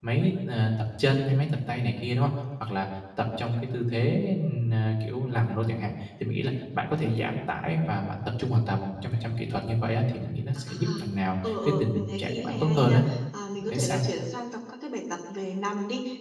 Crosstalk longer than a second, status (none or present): present